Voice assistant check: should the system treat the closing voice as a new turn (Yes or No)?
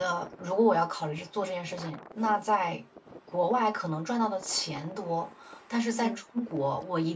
No